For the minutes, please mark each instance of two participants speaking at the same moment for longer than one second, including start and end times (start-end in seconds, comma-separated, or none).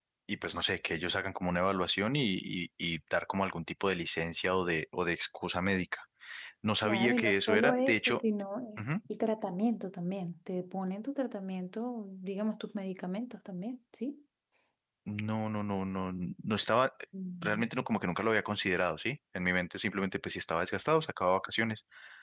6.8-8.2